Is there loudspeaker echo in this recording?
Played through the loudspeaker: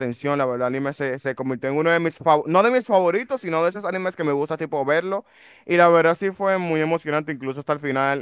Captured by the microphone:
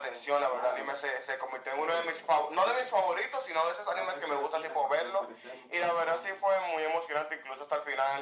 Yes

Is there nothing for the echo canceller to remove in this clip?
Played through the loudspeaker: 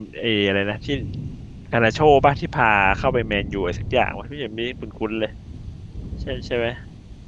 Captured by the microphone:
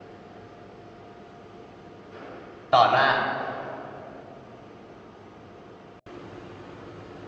Yes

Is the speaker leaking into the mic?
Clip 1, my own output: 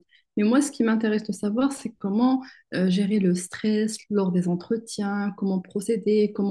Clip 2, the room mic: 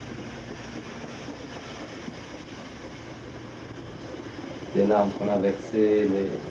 No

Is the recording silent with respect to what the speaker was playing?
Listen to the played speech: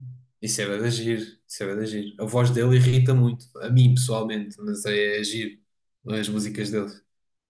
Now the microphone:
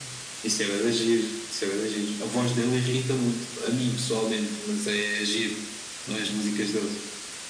No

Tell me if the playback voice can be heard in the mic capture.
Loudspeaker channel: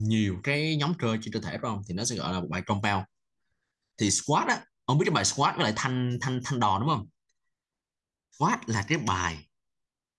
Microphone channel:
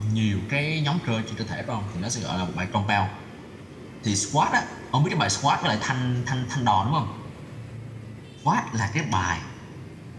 Yes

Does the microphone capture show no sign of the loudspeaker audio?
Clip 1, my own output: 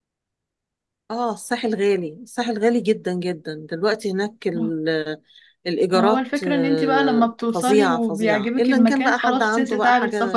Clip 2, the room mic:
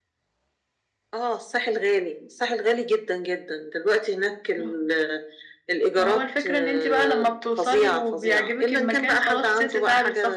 No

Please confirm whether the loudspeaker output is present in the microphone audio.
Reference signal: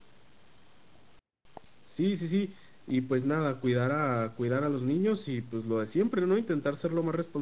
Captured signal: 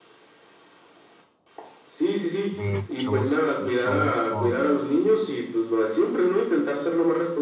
Yes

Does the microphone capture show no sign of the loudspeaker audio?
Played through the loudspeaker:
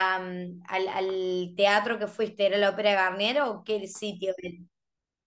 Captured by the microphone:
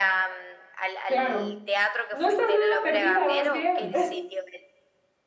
No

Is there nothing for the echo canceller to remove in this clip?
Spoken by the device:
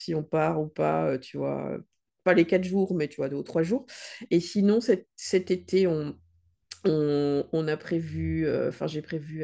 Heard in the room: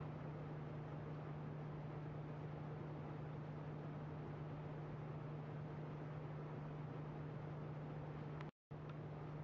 Yes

